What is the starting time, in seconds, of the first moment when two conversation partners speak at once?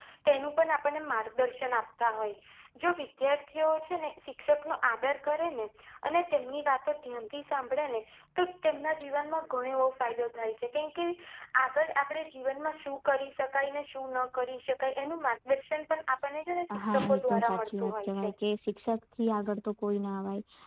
16.7 s

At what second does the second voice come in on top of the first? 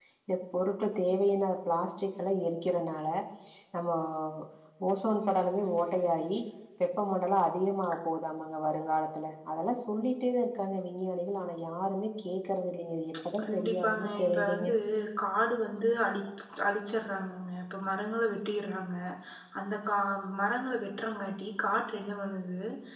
13.4 s

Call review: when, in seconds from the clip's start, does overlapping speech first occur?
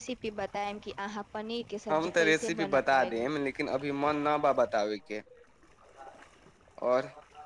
1.9 s

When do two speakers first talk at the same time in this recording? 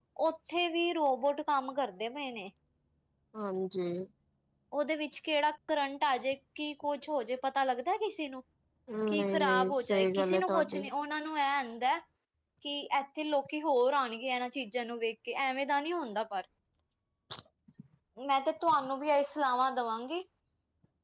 9.1 s

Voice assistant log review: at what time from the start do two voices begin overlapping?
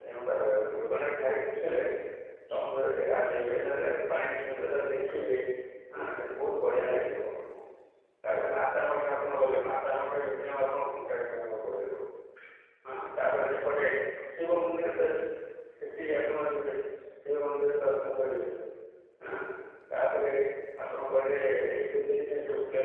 none

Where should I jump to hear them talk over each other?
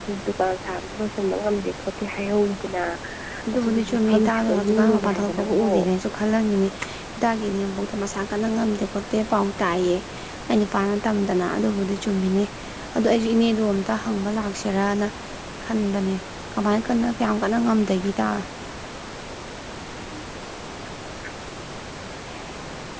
3.5 s

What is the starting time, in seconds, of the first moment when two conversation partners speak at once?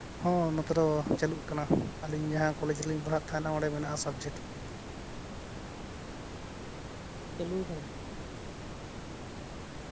none

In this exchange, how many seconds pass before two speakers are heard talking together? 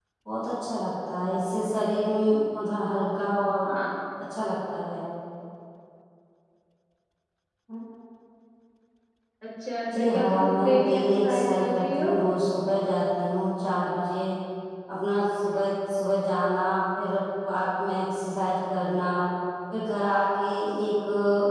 9.9 s

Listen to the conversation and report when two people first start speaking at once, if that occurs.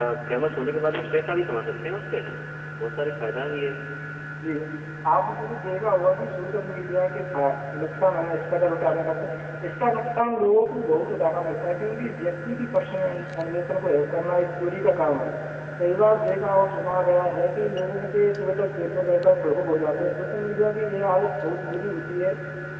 none

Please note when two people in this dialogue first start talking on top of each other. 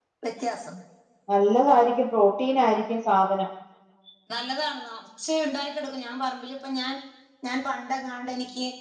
none

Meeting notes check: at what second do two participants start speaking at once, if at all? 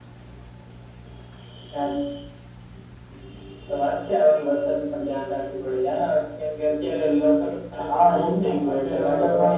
7.8 s

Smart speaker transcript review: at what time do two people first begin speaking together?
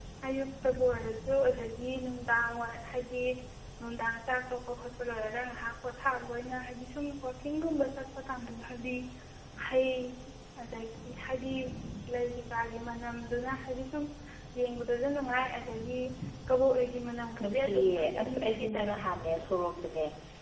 17.4 s

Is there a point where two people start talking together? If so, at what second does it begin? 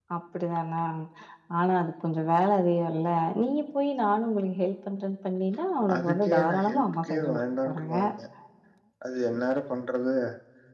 5.8 s

